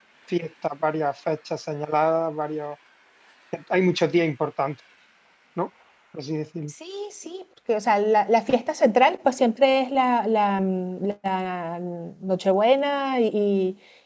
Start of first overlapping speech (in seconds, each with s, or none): none